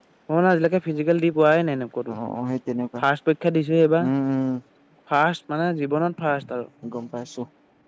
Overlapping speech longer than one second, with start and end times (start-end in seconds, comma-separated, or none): none